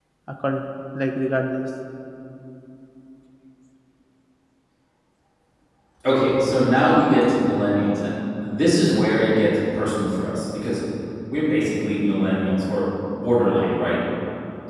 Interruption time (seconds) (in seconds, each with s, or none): none